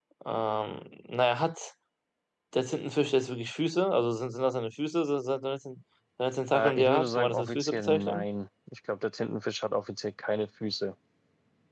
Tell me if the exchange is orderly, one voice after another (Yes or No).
No